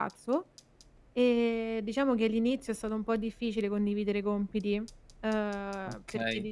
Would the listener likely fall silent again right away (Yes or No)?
No